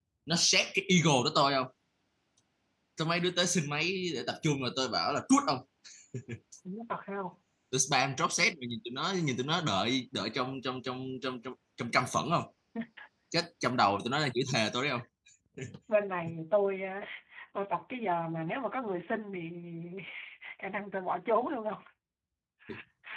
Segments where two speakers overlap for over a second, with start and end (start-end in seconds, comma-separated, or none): none